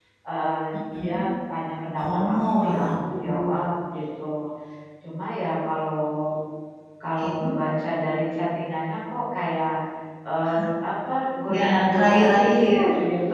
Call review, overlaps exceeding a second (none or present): present